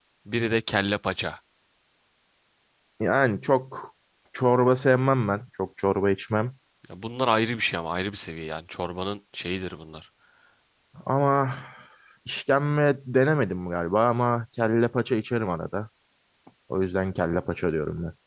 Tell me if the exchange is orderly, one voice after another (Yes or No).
Yes